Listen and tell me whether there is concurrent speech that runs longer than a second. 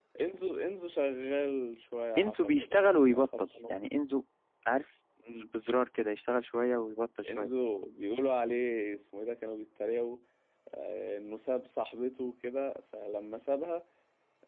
Yes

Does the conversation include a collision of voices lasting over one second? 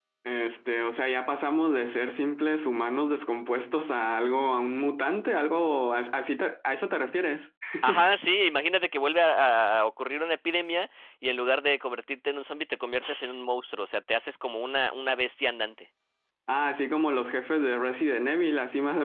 No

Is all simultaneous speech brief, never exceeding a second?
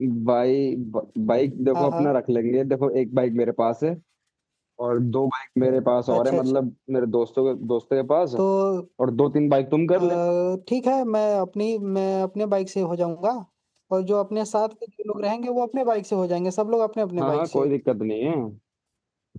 Yes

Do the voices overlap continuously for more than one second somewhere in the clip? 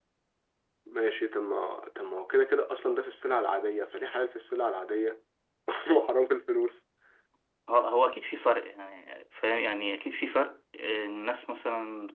No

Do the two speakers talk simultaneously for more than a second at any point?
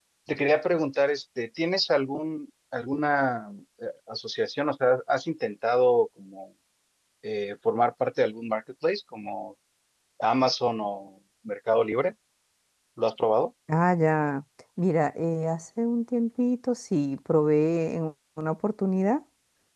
No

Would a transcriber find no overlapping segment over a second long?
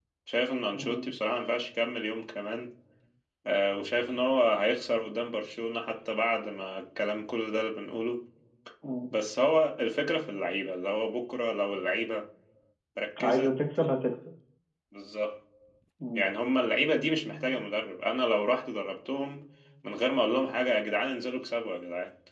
Yes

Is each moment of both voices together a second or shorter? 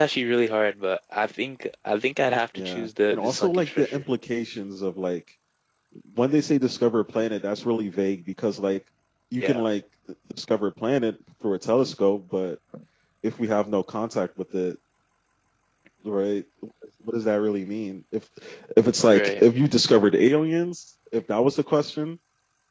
No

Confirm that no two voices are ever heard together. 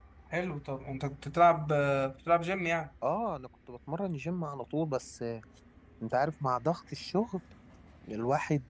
Yes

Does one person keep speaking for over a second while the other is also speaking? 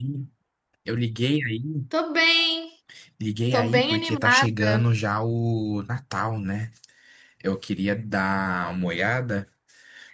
Yes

